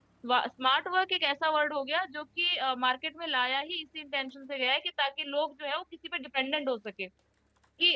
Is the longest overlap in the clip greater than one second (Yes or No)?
No